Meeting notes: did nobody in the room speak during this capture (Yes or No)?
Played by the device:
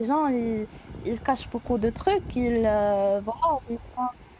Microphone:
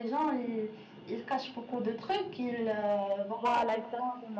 No